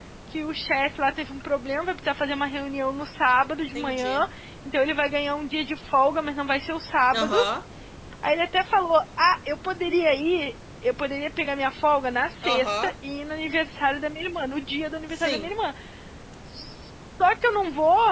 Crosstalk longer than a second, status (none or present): none